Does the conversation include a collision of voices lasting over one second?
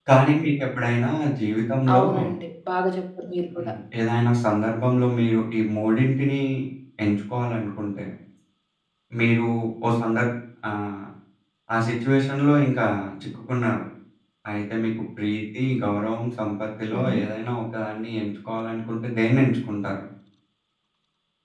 No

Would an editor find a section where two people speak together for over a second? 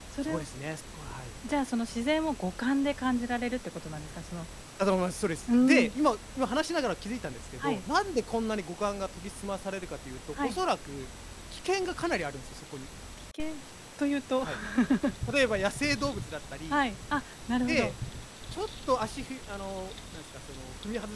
No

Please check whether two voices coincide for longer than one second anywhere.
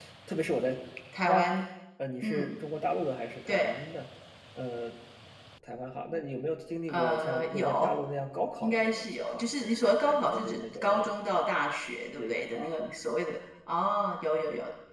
Yes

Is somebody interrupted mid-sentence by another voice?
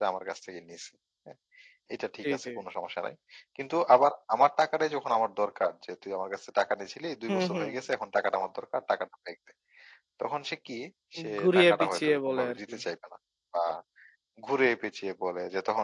Yes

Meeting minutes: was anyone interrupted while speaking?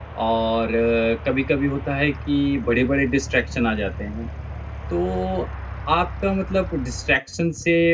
No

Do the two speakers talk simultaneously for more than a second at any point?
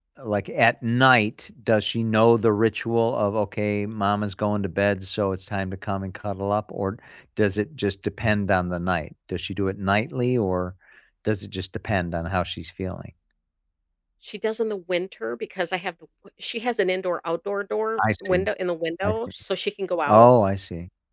No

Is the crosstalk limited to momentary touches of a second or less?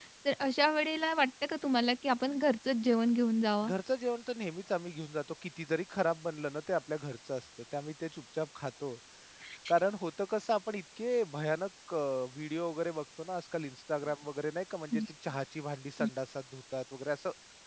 Yes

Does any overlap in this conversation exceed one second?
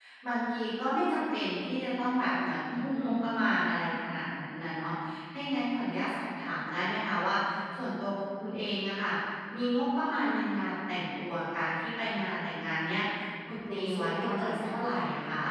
Yes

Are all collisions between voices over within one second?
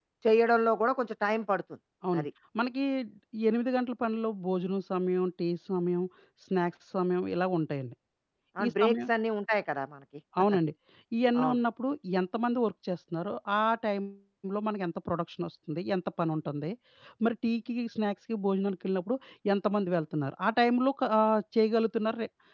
Yes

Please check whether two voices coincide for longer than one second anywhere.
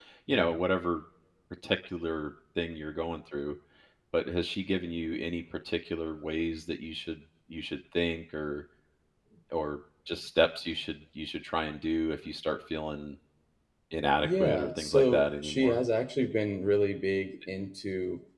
Yes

